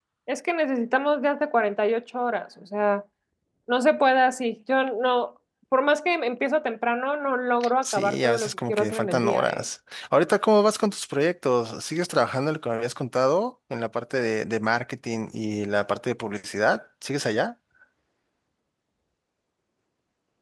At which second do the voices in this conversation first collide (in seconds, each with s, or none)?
7.6 s